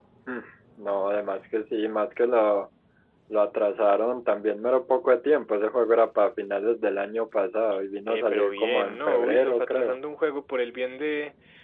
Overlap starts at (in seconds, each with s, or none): 8.1 s